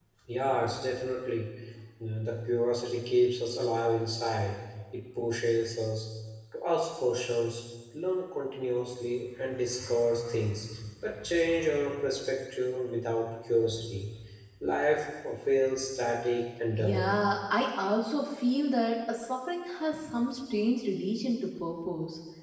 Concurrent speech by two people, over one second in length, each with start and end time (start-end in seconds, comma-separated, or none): none